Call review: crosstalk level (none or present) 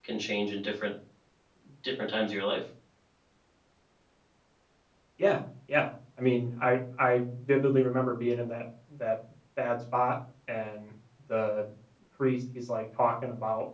none